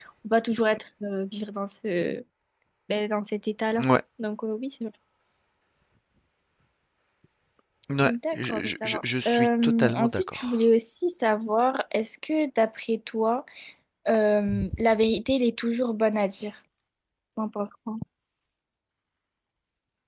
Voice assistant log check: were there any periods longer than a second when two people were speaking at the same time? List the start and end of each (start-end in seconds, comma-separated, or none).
8.0-10.6